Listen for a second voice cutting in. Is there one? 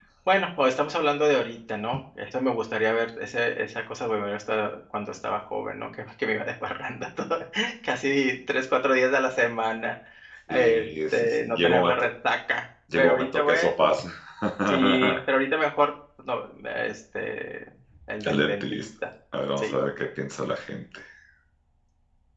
Yes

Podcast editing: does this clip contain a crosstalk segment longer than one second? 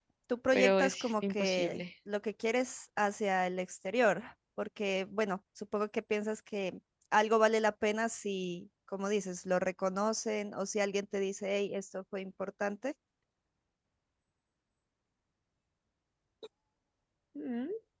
Yes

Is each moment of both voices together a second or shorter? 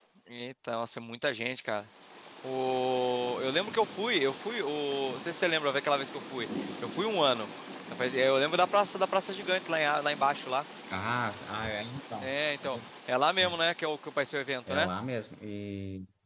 Yes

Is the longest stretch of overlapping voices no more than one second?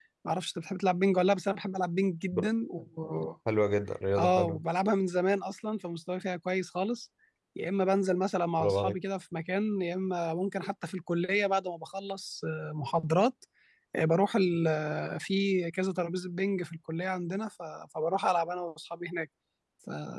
Yes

